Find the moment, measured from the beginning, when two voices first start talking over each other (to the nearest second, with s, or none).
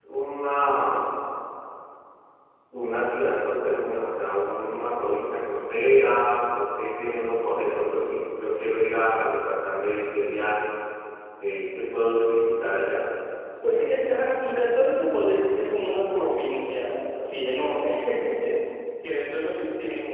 none